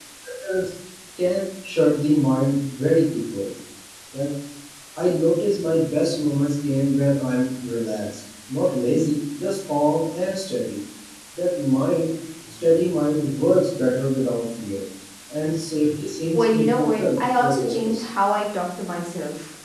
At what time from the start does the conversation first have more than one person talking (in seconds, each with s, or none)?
16.3 s